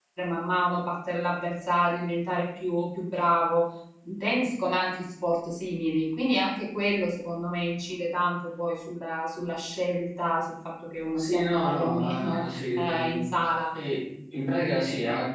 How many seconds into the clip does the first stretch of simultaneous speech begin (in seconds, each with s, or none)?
11.2 s